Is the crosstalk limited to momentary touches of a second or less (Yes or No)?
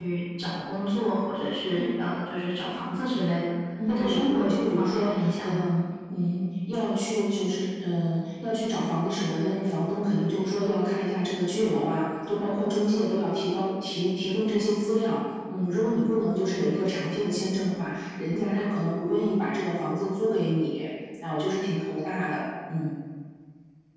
No